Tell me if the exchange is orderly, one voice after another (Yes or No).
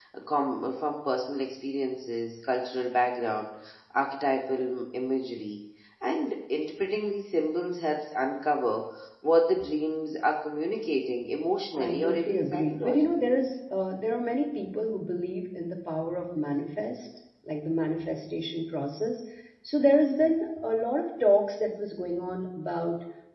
No